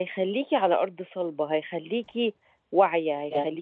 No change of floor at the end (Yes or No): Yes